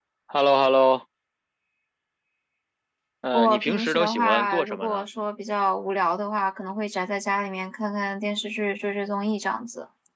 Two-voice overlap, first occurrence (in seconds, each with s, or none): 3.3 s